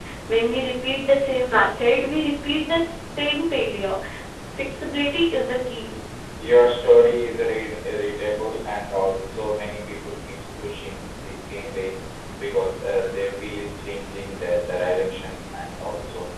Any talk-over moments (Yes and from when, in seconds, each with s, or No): No